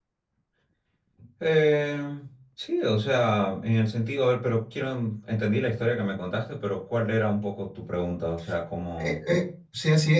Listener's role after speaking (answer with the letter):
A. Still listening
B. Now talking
B